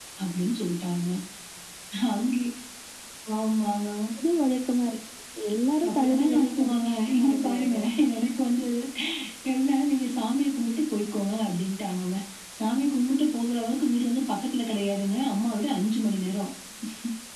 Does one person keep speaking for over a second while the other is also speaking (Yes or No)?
Yes